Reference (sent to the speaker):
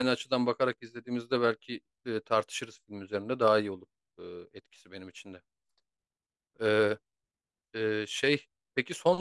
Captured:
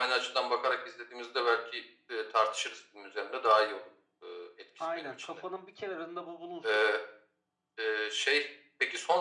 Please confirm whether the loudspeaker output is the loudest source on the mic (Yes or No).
Yes